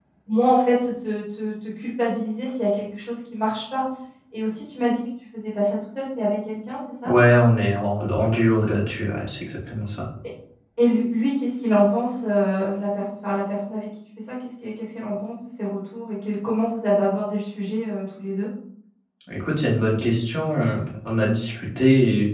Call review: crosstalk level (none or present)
none